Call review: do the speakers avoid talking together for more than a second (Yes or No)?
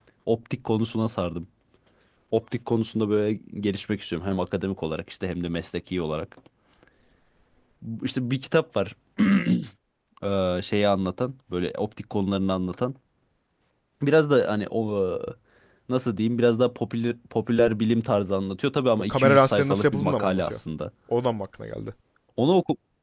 No